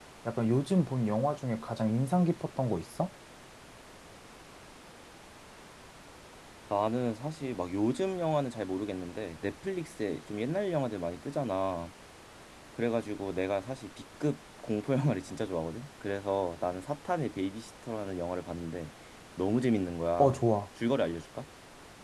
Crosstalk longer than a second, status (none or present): none